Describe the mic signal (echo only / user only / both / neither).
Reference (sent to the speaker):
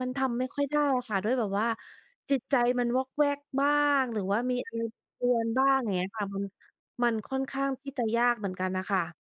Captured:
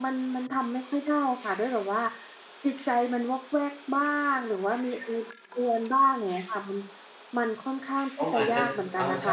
both